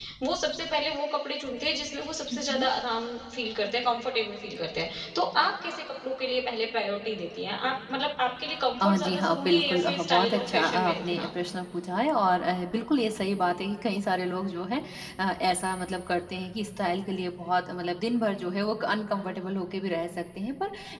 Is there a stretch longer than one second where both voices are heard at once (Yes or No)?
Yes